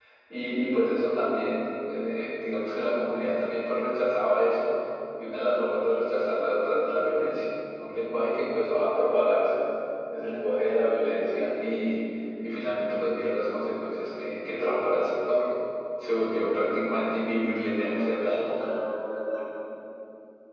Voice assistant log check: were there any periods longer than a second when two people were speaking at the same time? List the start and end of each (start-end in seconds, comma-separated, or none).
17.5-18.7